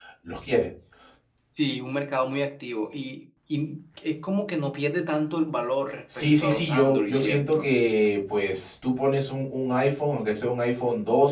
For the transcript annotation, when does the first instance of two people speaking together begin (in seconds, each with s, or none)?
6.1 s